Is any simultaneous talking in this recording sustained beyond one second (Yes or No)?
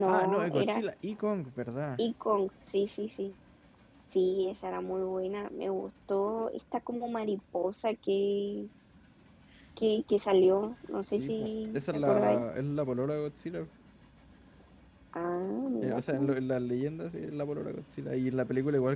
Yes